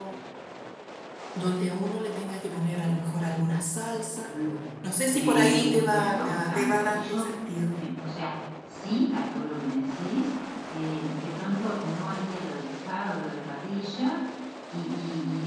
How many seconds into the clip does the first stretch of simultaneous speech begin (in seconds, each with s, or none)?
5.1 s